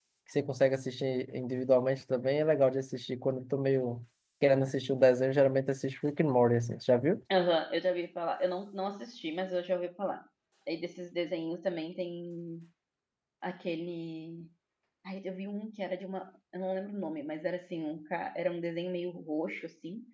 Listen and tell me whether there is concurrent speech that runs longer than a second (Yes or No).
No